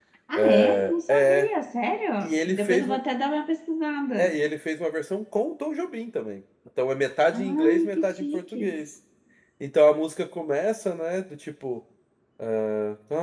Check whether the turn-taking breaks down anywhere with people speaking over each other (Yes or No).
Yes